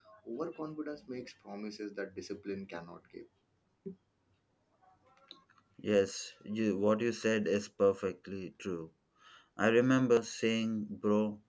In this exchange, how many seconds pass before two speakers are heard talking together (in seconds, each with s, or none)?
none